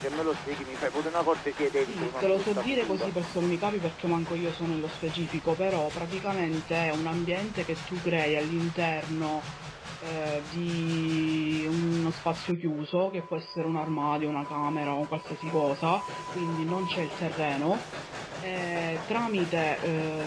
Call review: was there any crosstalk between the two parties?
Yes, from 1.9 s

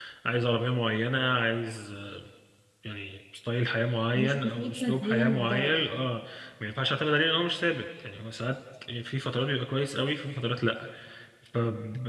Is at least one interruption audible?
Yes, from 4.1 s

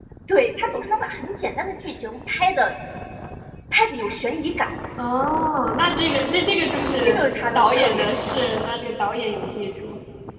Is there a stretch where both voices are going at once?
Yes, from 7.0 s

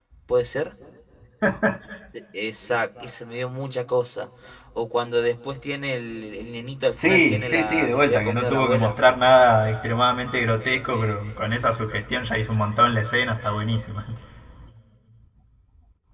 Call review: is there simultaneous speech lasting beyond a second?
Yes, from 6.9 s

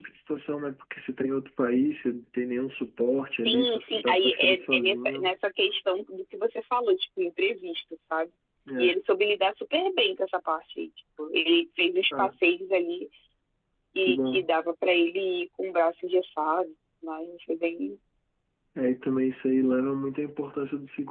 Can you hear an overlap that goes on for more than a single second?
Yes, from 3.5 s

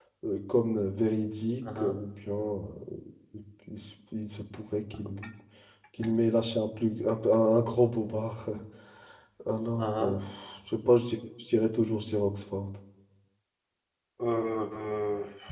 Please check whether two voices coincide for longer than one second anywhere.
No

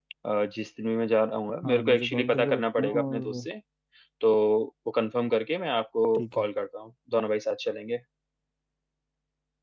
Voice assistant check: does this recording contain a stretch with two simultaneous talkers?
Yes, from 1.6 s

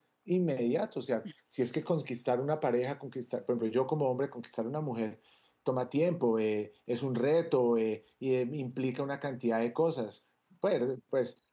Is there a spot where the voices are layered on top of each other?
No

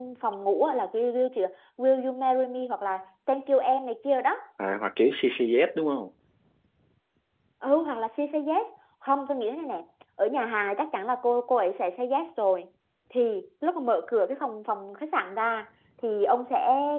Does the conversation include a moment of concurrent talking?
No

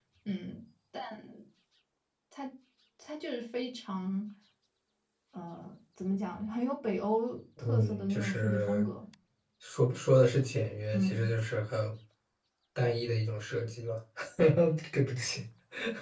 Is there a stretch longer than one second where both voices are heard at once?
Yes, from 7.6 s

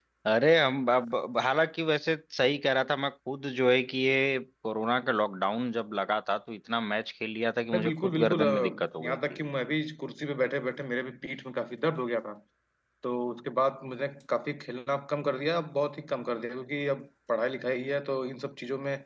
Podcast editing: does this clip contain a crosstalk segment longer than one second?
Yes, from 7.7 s

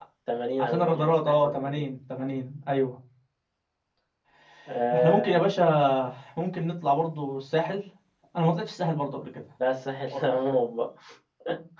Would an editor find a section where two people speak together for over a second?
Yes, from 0.6 s

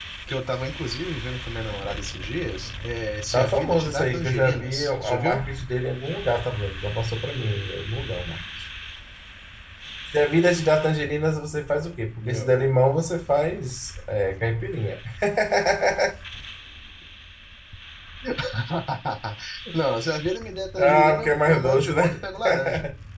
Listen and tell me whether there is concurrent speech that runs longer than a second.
Yes, from 3.3 s

